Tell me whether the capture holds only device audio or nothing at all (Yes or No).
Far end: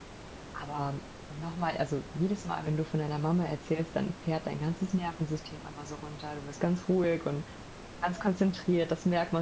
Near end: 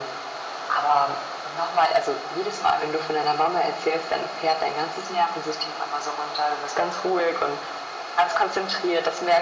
Yes